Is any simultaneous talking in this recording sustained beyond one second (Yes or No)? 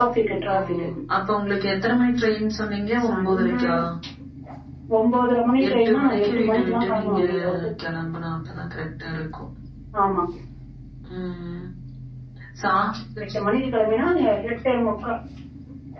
Yes